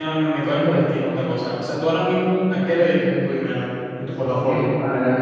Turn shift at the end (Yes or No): Yes